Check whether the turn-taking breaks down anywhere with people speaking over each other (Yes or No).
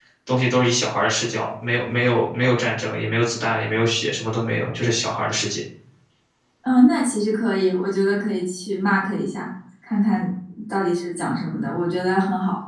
No